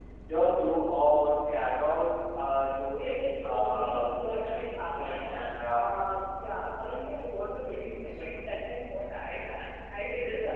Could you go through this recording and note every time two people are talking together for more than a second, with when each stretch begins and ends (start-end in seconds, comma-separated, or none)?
2.9-5.2